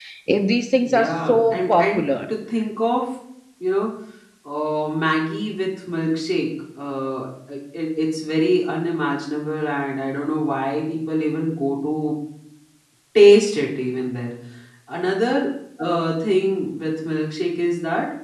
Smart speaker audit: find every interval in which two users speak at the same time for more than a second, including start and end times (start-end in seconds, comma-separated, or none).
0.8-2.1